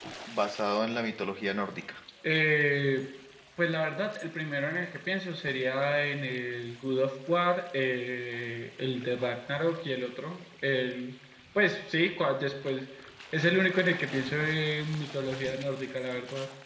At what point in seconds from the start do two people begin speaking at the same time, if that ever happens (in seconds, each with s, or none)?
none